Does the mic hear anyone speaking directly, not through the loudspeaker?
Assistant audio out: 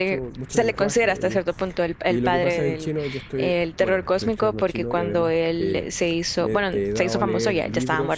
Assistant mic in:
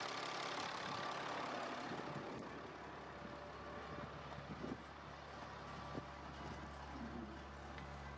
No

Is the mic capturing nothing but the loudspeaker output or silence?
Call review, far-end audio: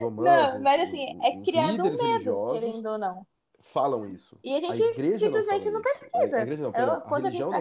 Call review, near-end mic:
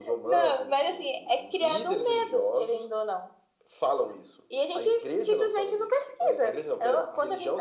Yes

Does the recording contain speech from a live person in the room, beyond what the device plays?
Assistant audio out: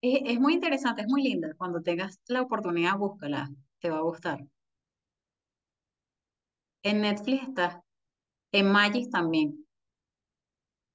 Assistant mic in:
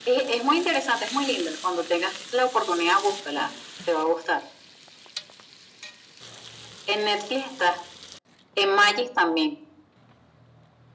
No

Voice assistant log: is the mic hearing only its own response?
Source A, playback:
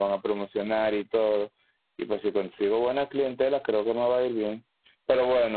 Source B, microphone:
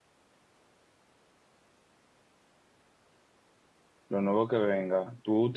No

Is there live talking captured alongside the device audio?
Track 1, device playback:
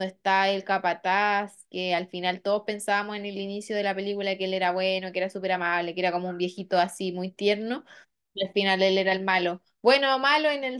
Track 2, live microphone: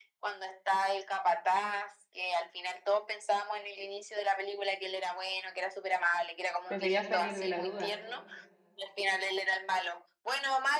Yes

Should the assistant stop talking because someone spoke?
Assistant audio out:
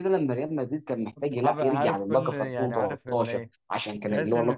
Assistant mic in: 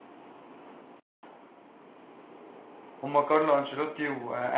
Yes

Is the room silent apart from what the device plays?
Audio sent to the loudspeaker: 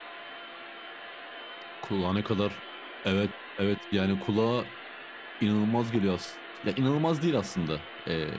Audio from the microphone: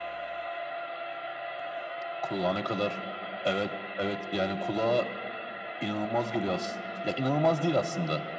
Yes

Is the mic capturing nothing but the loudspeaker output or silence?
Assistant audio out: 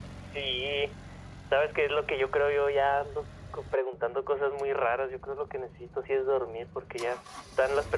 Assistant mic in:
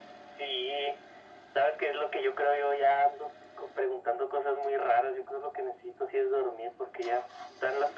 Yes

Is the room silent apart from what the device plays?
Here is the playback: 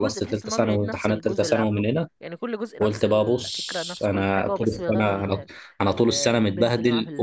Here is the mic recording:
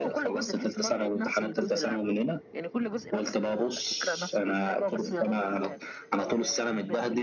Yes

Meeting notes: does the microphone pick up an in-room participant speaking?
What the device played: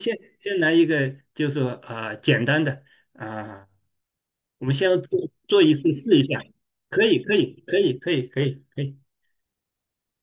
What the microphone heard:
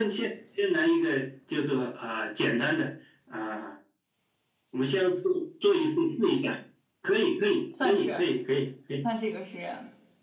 Yes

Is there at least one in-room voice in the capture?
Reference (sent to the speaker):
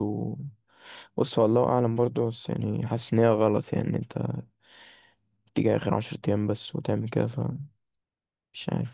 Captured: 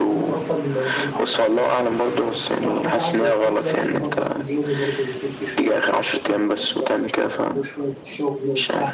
Yes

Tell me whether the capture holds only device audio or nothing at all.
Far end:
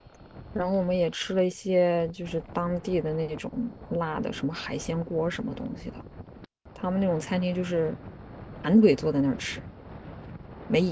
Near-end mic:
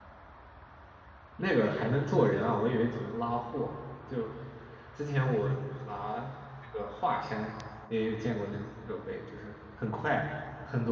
No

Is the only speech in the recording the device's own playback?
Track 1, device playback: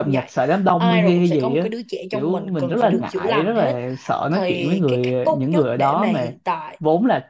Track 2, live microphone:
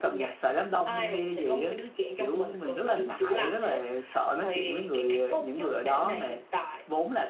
Yes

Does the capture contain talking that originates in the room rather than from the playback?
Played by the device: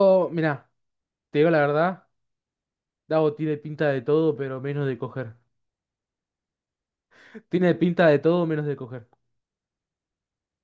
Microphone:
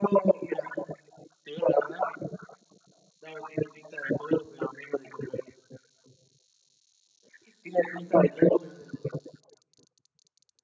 No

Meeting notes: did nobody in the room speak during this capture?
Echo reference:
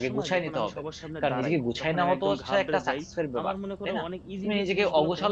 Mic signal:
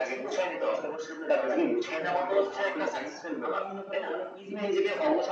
Yes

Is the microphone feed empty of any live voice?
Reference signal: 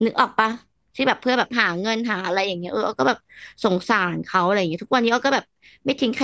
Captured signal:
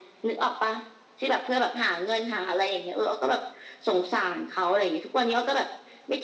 Yes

